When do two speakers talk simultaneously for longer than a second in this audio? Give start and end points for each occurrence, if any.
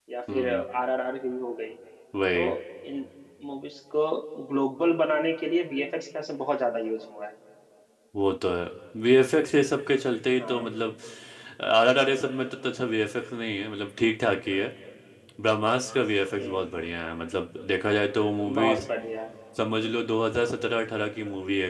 none

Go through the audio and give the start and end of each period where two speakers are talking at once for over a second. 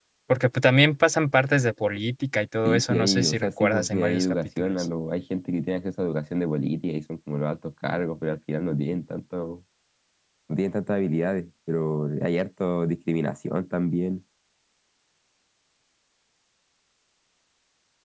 2.6-4.8

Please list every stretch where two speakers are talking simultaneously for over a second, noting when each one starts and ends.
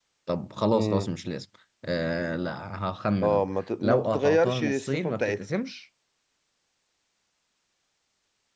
3.8-5.4

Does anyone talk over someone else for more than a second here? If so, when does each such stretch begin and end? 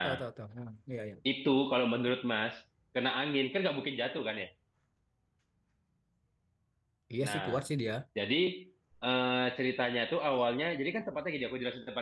none

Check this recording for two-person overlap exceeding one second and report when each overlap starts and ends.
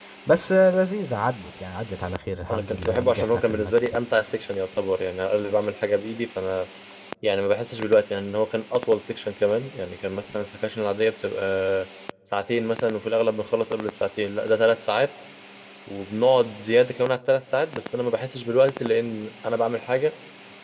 2.5-3.7

